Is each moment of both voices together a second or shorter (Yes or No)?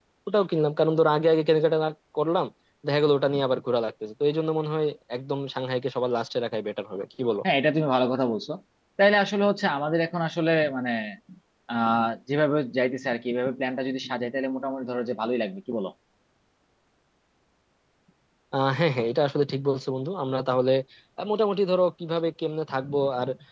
Yes